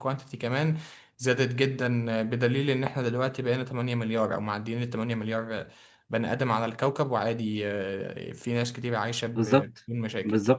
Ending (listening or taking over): taking over